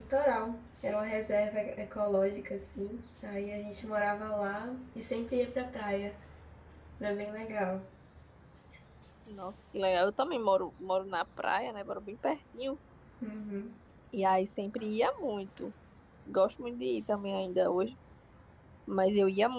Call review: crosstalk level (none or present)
none